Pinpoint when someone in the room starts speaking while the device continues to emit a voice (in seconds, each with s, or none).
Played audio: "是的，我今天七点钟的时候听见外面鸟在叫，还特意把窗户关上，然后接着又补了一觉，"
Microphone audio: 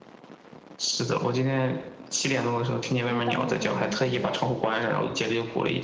3.0 s